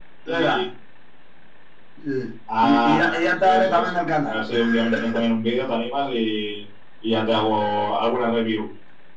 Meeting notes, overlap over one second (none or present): present